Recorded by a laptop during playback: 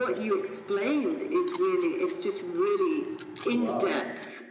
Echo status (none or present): present